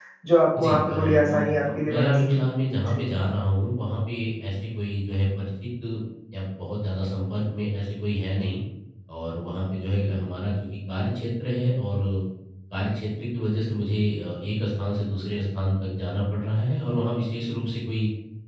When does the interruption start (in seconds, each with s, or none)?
0.6 s